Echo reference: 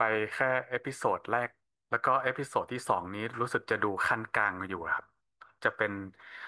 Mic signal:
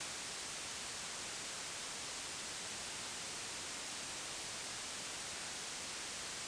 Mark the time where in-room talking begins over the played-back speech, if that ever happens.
none

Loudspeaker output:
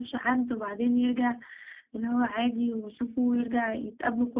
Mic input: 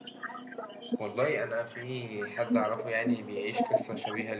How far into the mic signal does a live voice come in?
1.0 s

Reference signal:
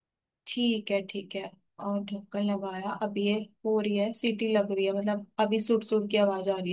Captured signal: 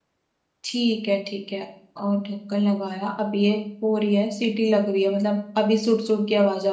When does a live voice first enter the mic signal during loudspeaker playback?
none

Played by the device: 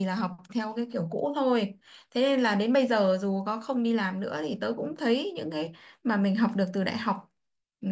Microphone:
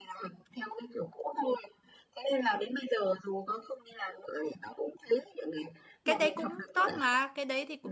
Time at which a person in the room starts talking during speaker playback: 6.0 s

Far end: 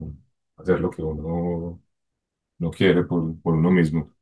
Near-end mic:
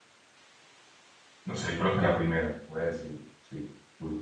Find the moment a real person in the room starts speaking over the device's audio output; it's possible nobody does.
1.4 s

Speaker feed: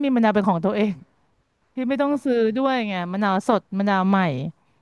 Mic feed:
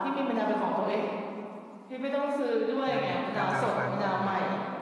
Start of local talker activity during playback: 2.9 s

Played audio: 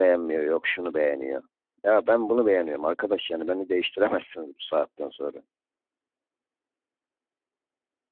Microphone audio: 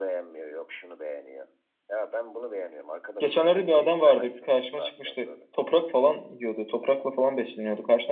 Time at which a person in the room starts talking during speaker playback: 3.2 s

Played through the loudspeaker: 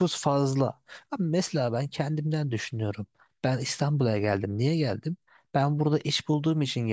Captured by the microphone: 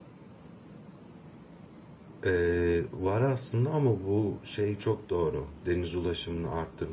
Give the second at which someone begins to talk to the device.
2.3 s

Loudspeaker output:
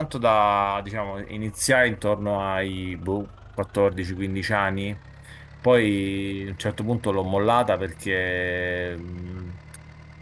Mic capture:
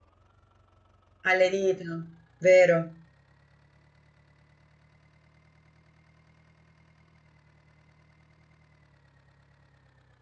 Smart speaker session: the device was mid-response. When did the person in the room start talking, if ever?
1.3 s

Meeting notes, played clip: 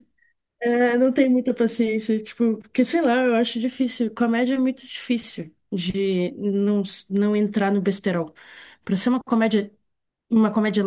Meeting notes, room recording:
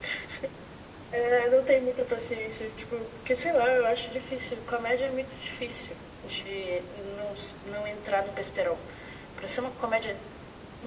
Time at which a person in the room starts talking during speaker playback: none

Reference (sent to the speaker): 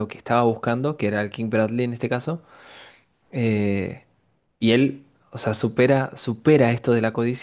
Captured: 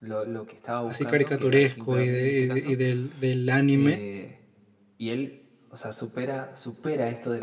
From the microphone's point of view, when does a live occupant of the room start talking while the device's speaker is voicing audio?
0.8 s

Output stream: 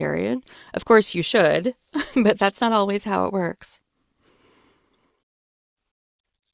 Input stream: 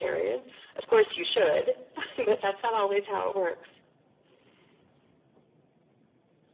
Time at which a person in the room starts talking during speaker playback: none

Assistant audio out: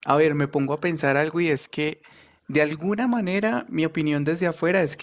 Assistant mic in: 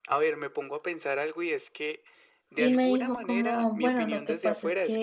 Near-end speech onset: 2.5 s

